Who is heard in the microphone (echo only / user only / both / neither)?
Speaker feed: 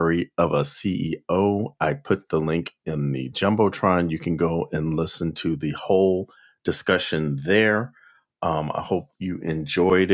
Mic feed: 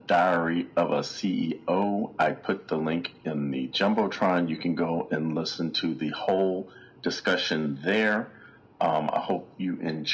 echo only